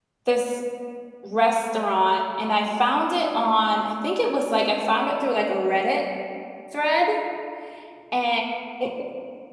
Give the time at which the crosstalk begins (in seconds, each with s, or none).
none